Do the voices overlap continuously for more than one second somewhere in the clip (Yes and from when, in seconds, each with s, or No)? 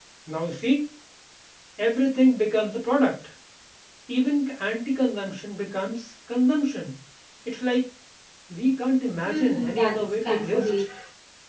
Yes, from 9.2 s